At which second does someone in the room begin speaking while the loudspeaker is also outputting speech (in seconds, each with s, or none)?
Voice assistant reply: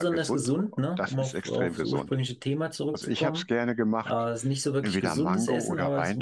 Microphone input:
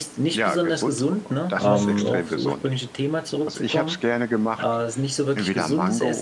1.6 s